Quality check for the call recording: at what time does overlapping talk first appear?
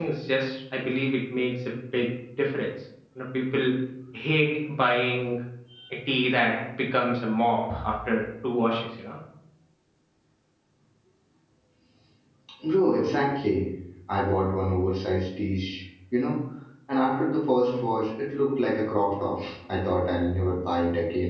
none

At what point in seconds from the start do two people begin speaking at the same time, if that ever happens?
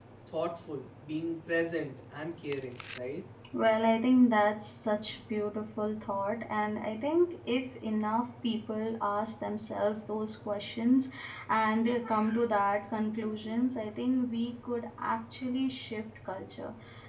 none

